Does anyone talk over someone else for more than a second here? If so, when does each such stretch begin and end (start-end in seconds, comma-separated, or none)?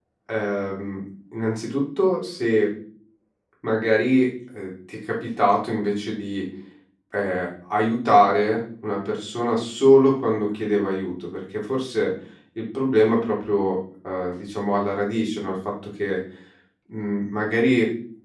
none